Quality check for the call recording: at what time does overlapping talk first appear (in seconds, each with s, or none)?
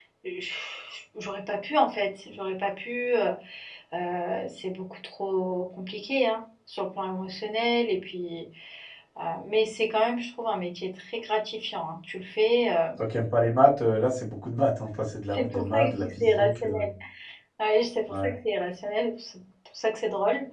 15.3 s